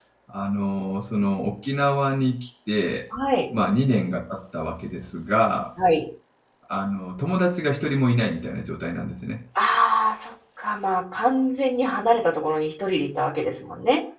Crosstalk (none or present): none